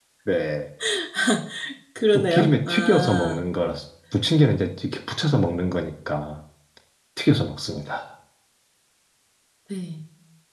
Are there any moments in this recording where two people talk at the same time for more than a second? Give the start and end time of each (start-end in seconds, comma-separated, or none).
2.1-3.4